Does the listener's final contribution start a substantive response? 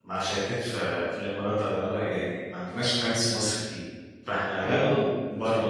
No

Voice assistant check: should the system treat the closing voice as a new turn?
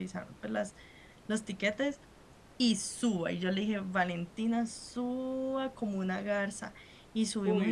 Yes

